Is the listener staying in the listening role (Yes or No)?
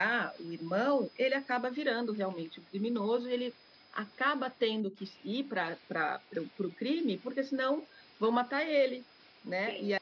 No